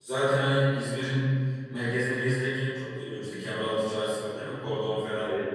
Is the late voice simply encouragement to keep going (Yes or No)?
No